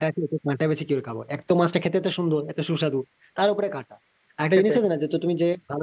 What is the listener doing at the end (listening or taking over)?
listening